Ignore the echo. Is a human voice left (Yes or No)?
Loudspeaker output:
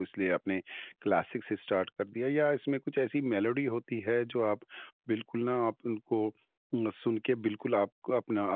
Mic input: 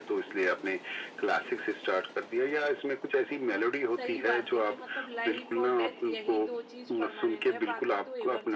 Yes